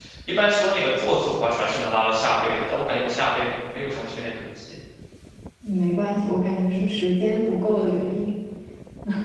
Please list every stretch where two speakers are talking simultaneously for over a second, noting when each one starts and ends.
none

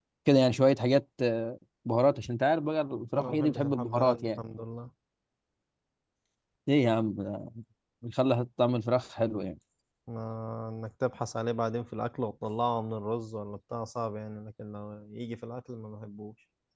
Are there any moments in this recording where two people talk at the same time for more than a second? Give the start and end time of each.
3.2-4.4

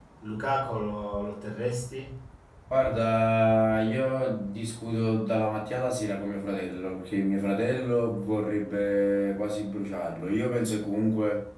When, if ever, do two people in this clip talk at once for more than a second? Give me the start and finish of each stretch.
none

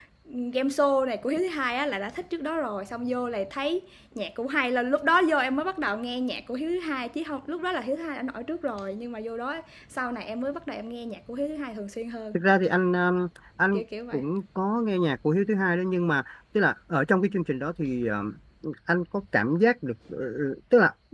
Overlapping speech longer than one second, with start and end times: none

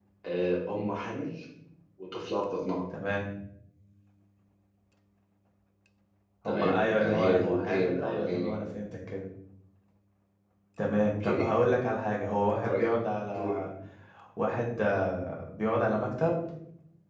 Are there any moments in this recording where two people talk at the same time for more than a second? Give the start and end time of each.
6.4-8.6

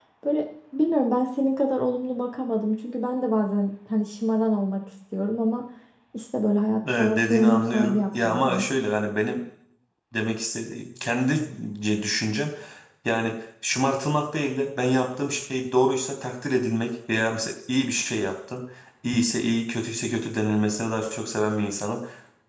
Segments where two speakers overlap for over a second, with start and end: 7.0-8.6

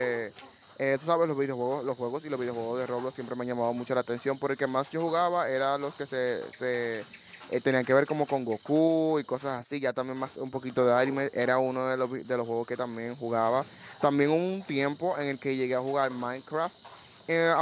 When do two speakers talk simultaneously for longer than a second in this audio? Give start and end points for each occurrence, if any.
none

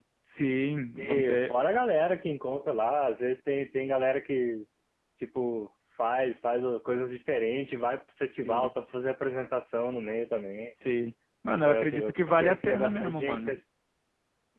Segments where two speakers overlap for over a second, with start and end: 11.7-13.6

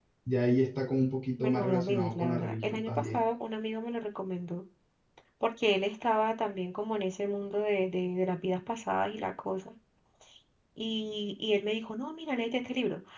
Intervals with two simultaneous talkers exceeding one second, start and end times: 1.4-3.2

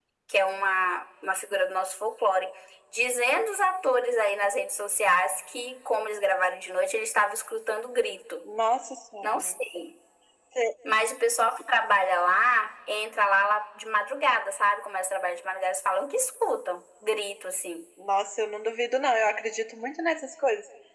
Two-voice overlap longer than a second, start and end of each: none

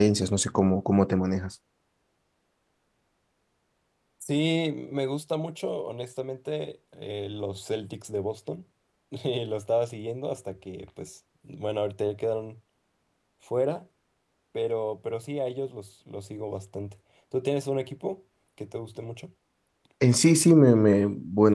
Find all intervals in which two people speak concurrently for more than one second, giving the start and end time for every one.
none

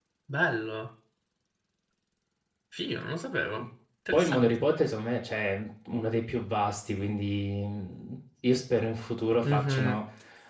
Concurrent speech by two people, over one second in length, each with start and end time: none

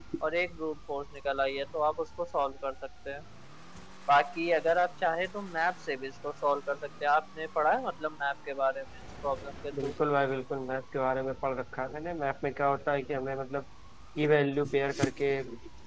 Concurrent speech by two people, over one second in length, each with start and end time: none

